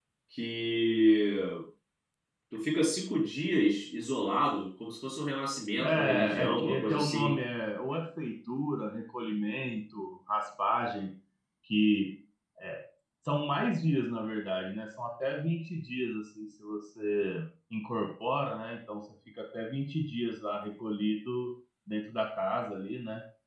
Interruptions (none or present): present